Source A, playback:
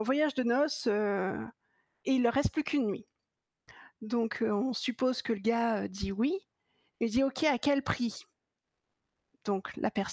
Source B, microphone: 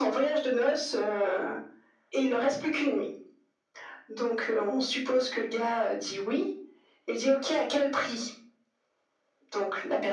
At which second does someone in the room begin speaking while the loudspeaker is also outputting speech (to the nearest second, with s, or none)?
none